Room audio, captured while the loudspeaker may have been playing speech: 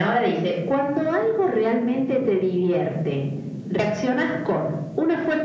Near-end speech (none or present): none